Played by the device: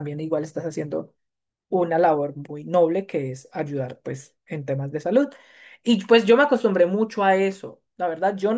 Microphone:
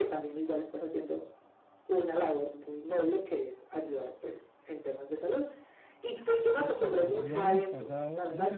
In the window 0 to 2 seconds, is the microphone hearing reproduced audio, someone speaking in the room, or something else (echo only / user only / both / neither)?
echo only